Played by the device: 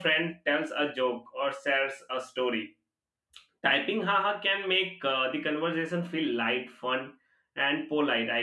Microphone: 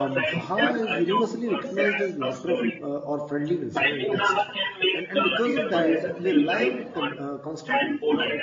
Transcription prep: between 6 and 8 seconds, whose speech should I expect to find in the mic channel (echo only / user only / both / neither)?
both